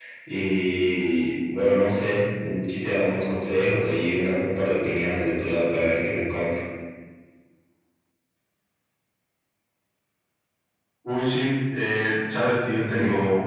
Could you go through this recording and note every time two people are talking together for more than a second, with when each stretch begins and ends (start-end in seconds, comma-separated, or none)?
none